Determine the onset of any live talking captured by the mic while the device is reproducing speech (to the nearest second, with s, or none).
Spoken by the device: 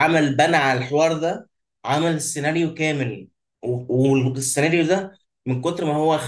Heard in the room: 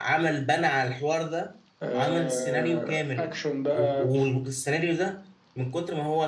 2 s